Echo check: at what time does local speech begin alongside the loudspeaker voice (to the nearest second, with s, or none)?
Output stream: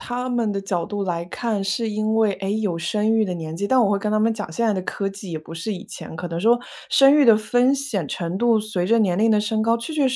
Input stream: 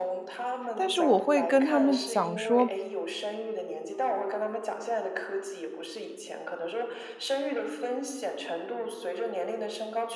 1 s